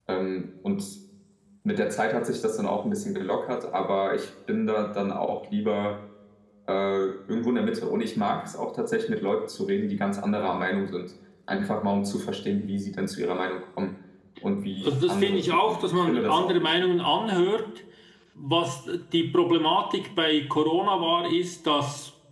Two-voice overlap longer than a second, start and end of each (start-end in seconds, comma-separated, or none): 14.8-16.7